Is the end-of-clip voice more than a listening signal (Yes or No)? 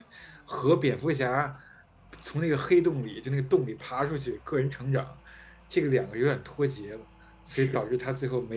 No